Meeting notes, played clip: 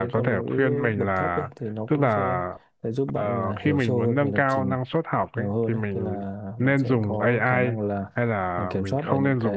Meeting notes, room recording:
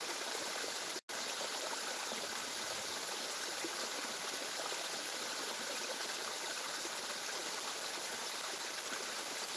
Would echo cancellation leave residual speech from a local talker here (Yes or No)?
No